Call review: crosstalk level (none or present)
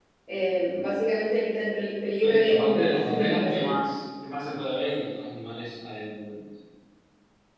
present